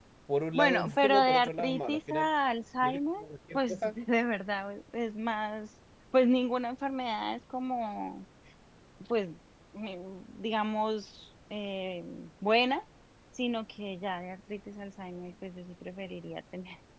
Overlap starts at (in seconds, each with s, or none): 0.5 s